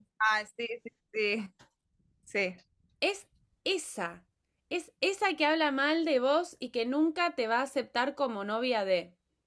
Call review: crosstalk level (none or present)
none